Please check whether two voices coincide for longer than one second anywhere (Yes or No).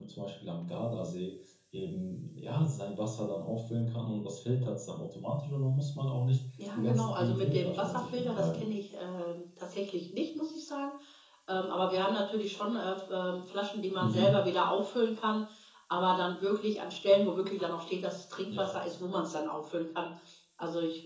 Yes